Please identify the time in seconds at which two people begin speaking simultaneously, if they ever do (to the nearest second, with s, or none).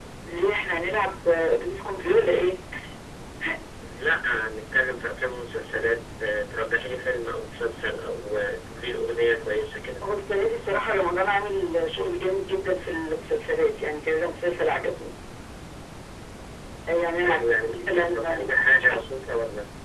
17 s